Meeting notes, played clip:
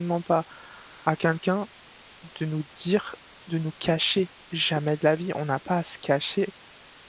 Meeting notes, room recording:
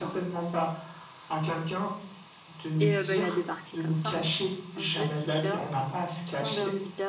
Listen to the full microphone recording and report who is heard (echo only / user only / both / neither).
both